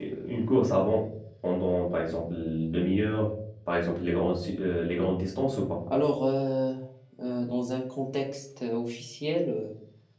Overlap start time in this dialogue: none

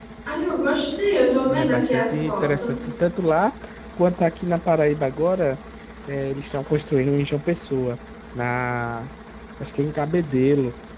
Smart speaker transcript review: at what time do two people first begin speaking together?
1.5 s

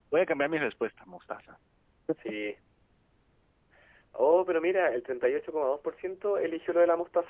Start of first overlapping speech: none

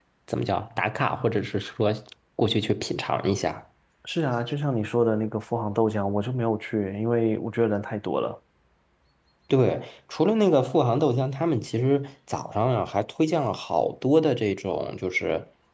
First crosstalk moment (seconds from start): none

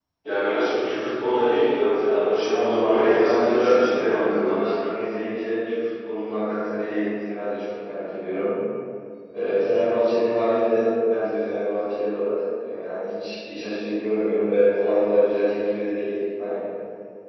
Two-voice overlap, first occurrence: 2.5 s

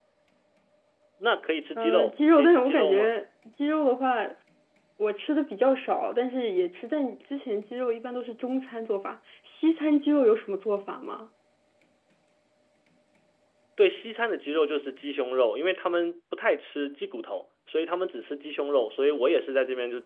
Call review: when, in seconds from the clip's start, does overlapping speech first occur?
1.8 s

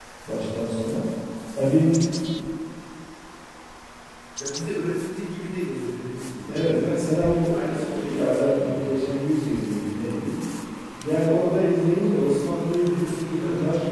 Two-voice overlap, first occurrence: 6.5 s

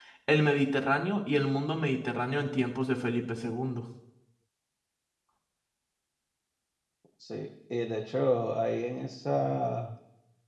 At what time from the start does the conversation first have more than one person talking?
none

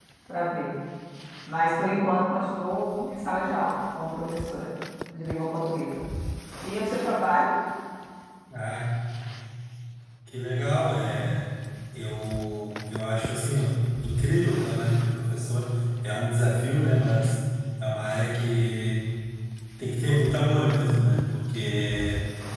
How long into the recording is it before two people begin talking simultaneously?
none

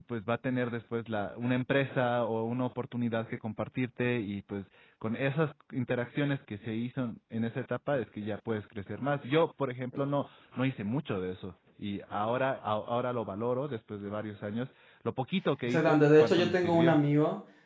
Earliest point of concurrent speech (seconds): 15.7 s

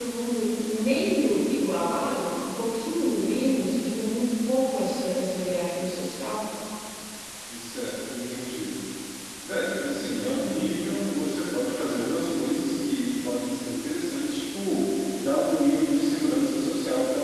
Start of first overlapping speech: none

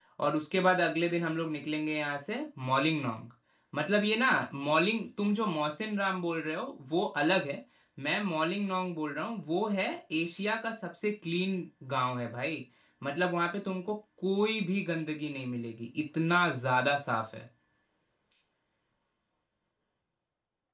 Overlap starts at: none

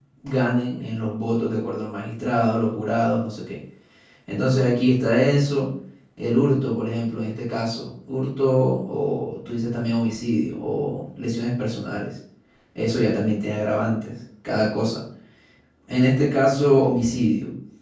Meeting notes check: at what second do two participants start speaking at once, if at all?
none

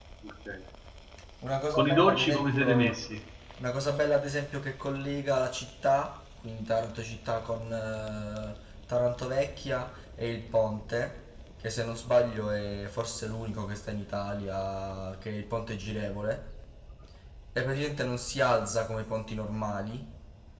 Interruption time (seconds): 1.7 s

